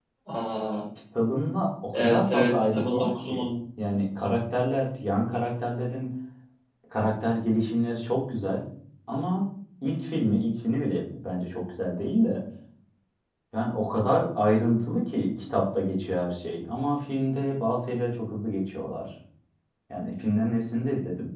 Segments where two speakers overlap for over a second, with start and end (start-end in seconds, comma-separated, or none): 1.9-3.5